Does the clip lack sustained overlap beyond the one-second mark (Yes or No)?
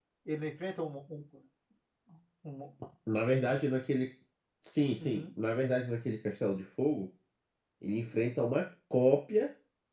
Yes